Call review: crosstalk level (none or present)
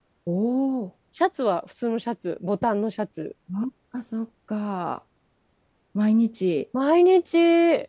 none